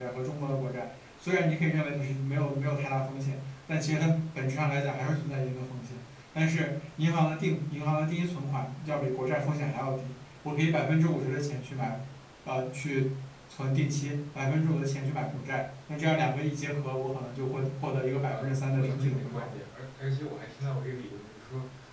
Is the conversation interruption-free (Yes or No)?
No